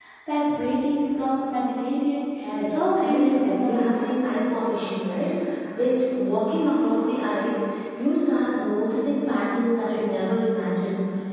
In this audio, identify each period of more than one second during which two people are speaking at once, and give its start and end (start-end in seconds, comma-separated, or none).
2.7-4.2